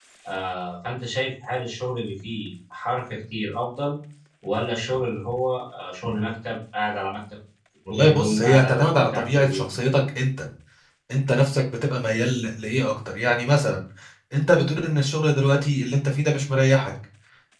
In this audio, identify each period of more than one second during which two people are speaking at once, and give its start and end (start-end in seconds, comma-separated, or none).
7.9-9.7